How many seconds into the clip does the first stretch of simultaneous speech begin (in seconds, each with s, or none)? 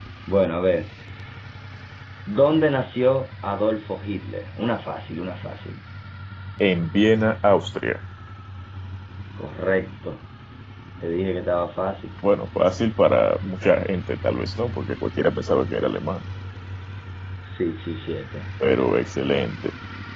none